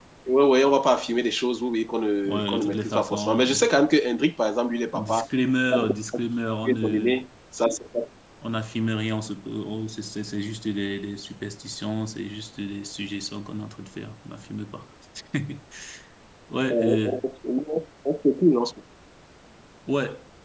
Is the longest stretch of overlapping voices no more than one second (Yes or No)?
No